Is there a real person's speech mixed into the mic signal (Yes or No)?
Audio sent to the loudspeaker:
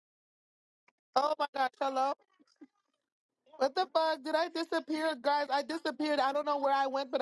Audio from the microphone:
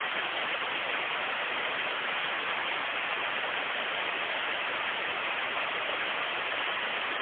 No